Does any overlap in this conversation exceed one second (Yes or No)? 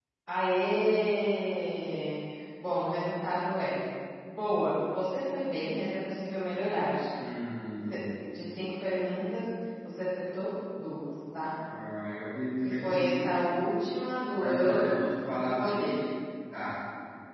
Yes